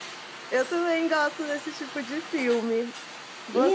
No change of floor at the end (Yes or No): Yes